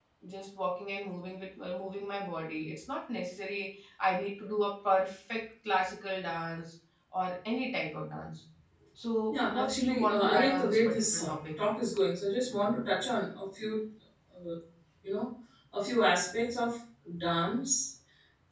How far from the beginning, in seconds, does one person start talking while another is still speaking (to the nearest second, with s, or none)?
9 s